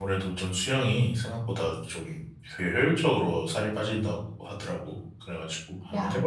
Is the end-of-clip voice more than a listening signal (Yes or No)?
Yes